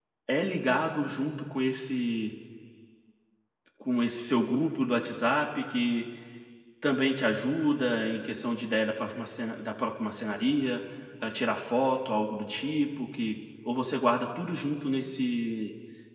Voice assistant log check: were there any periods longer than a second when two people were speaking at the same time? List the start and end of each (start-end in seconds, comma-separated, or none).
none